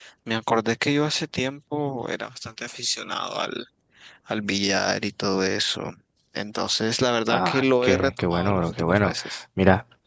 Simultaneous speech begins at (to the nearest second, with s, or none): 7 s